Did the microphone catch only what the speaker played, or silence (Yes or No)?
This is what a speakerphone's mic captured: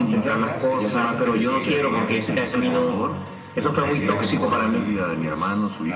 No